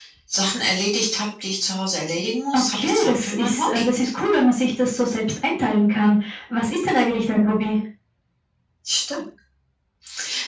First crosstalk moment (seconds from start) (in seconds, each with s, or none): 2.5 s